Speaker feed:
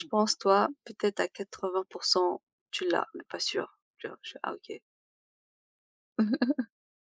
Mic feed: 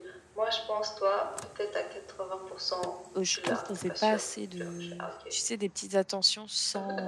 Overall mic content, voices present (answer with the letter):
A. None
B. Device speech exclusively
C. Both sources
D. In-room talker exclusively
C